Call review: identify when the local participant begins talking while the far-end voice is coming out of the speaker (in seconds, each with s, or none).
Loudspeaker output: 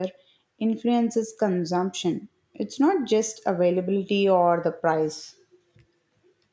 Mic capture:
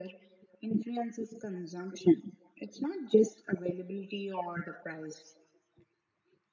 none